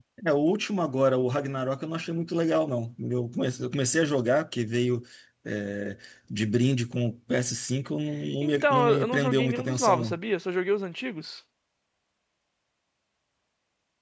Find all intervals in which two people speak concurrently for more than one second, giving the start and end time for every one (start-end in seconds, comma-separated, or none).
8.4-10.2